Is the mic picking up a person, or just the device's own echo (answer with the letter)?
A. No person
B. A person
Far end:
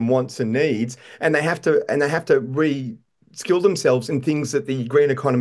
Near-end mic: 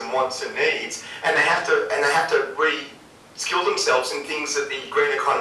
A